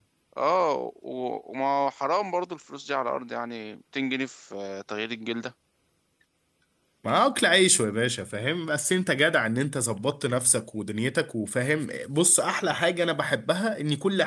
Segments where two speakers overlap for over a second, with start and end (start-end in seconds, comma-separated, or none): none